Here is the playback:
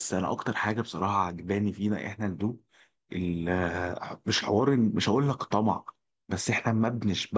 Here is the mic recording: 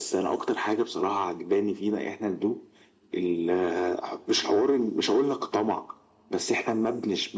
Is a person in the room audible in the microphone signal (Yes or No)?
No